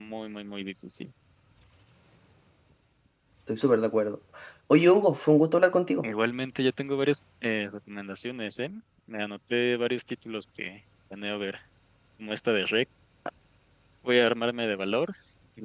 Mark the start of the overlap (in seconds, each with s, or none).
none